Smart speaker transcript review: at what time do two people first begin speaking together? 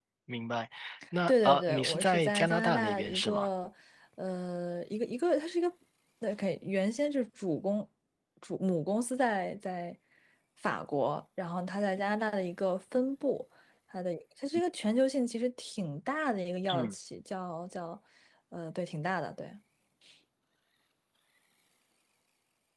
1.3 s

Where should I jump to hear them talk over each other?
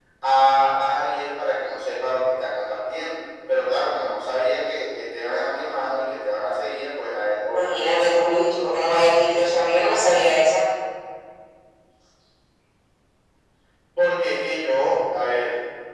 7.5 s

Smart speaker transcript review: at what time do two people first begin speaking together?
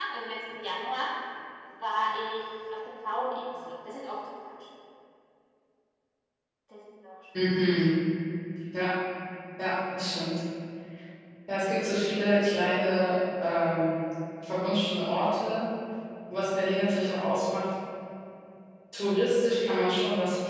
none

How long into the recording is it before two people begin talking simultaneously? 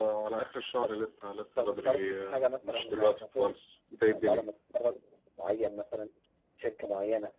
1.6 s

